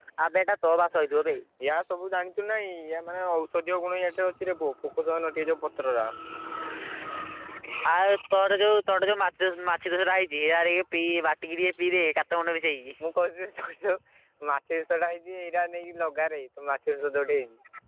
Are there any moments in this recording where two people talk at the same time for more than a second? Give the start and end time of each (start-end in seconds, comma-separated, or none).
none